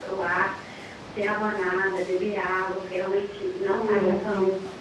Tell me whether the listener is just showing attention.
No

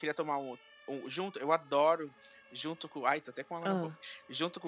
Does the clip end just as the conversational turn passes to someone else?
No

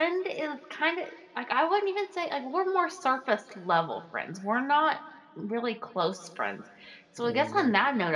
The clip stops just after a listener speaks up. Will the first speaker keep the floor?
Yes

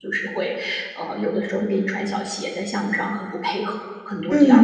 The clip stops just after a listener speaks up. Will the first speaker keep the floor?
No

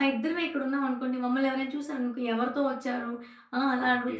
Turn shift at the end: No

